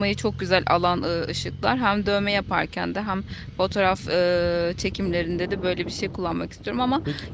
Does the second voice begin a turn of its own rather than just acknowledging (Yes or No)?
No